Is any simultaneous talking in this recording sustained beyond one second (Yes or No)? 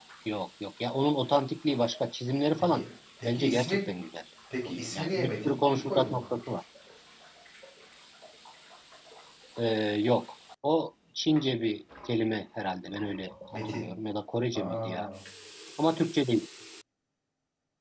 Yes